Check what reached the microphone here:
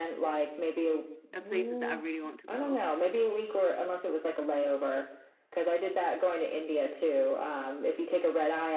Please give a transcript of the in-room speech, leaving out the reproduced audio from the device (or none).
a places that I really want to go.